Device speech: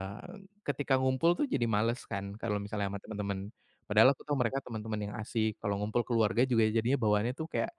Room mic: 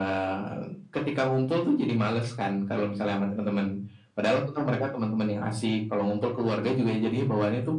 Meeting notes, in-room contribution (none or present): none